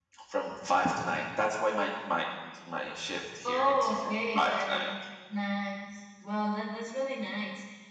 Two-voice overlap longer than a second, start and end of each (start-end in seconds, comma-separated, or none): 3.4-4.9